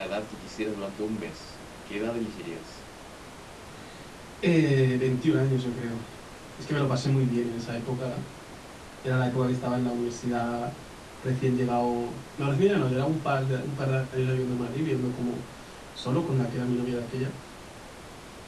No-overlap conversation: Yes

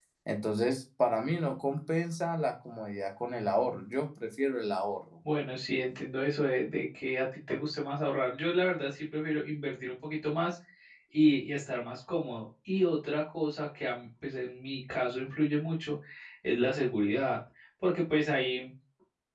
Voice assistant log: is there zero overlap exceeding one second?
Yes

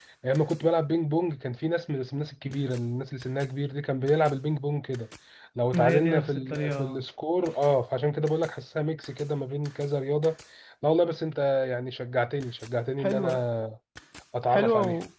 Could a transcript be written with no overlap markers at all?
No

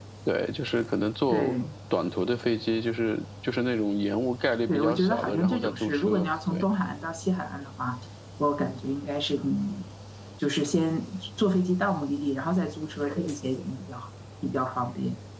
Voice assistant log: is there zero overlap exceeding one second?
No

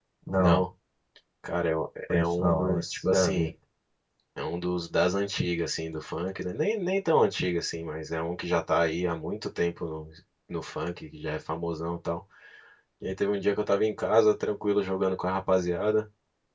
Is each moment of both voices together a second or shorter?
No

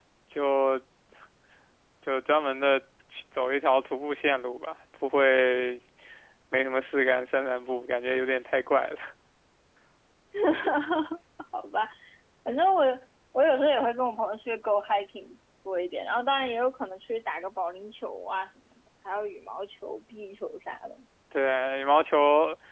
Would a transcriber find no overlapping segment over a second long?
Yes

